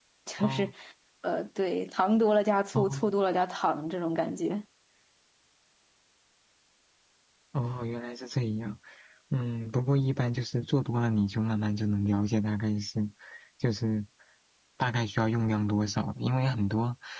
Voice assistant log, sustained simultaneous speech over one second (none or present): none